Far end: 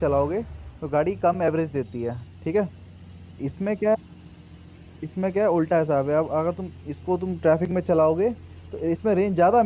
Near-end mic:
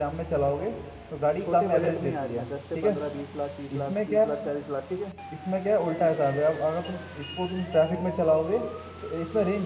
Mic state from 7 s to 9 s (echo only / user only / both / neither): echo only